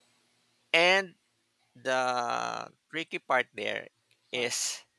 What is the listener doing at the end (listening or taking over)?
listening